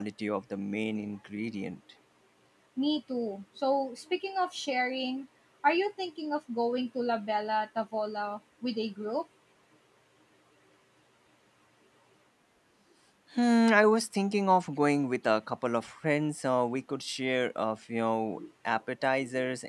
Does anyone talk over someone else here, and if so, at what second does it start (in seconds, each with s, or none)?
none